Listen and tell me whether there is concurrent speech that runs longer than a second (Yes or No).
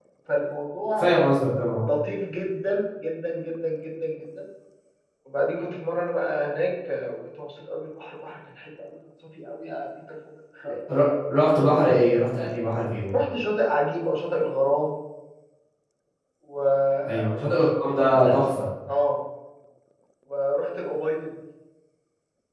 No